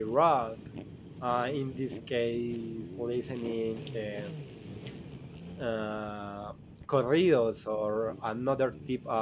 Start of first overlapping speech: none

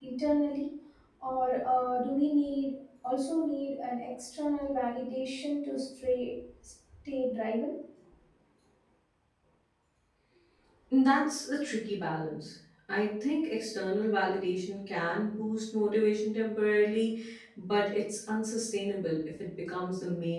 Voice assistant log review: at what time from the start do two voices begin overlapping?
none

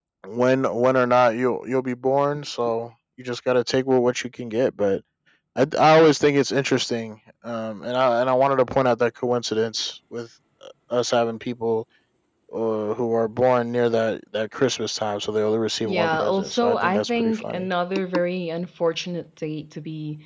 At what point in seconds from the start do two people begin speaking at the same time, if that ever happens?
15.8 s

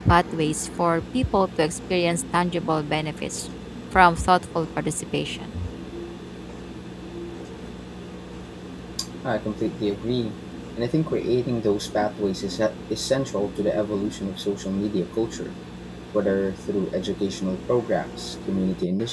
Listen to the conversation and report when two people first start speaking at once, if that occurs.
none

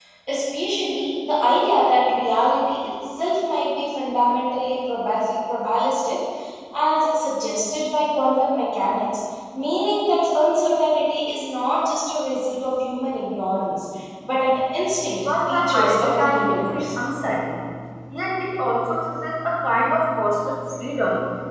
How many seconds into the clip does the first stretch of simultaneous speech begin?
15.2 s

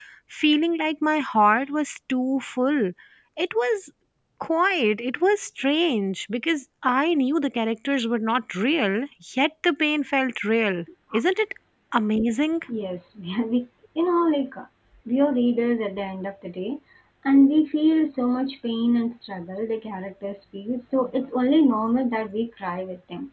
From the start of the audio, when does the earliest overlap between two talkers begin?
none

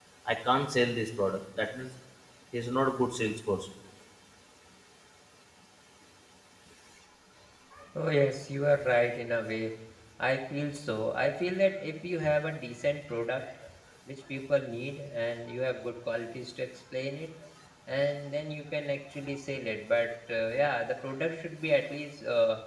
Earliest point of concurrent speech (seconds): none

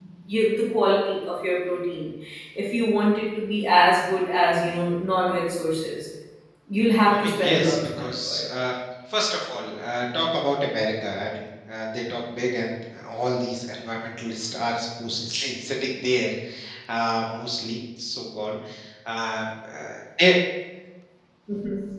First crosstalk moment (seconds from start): 7.1 s

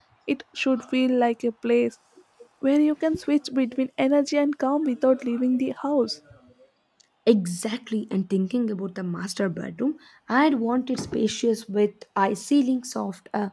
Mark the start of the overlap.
none

